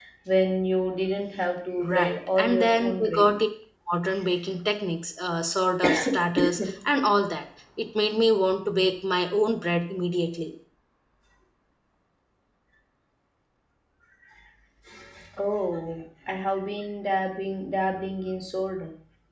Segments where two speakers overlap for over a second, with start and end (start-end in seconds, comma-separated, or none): 1.9-3.4